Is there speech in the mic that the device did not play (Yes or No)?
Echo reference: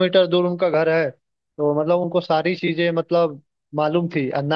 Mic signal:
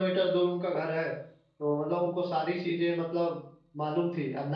No